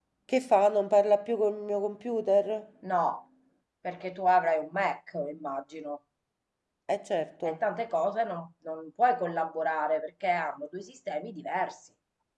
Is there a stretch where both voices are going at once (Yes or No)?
No